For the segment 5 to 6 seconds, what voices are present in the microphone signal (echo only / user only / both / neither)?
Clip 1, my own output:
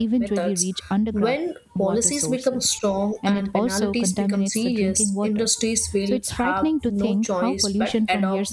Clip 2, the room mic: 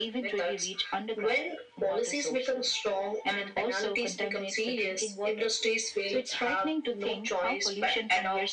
echo only